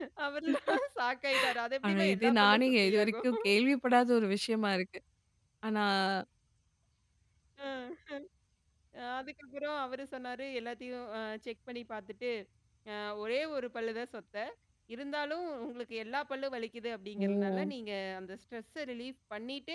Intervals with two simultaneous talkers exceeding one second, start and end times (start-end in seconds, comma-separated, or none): 1.9-3.2